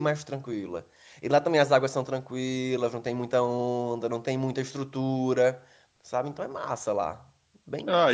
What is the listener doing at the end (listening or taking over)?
taking over